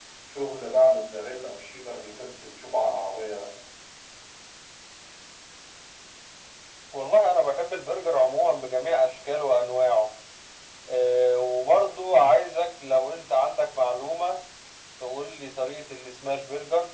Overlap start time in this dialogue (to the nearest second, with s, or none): none